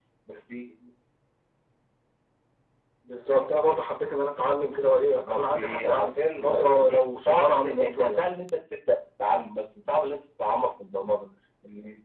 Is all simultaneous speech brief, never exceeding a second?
No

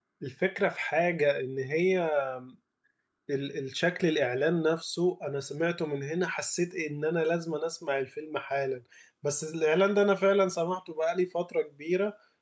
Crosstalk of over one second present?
No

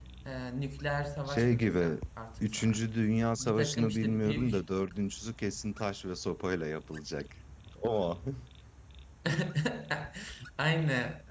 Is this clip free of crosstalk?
No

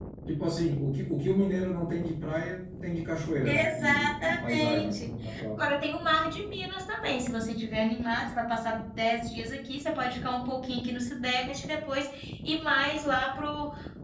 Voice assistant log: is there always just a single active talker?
No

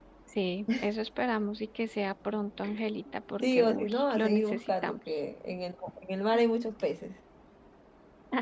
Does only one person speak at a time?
No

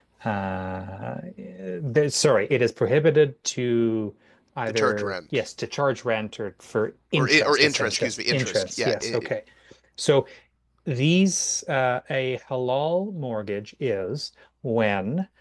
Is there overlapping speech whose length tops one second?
Yes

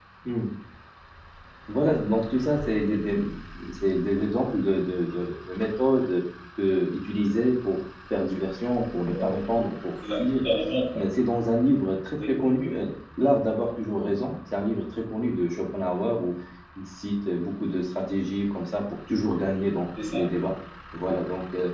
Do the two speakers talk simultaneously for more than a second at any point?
No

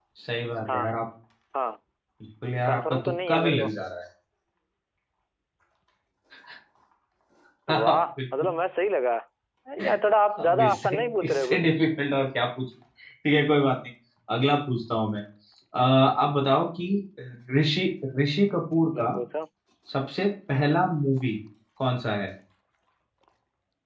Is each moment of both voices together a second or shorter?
No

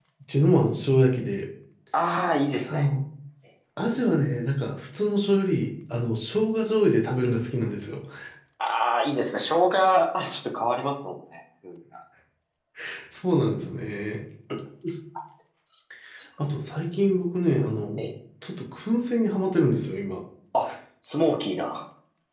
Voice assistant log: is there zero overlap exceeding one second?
Yes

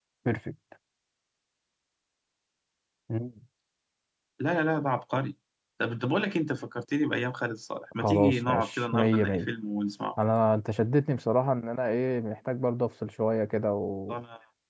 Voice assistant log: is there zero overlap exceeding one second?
No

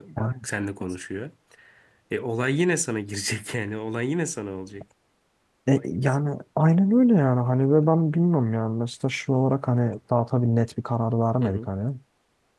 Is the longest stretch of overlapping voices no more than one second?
Yes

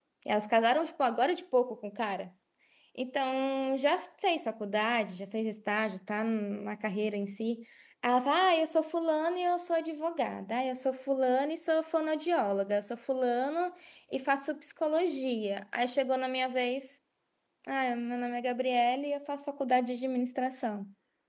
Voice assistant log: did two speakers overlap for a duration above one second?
No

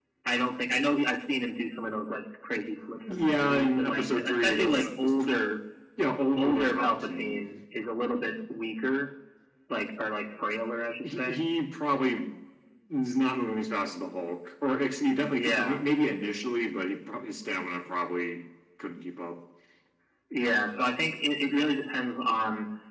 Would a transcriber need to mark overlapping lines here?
Yes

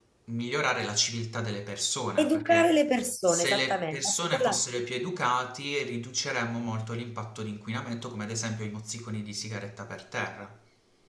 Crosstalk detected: Yes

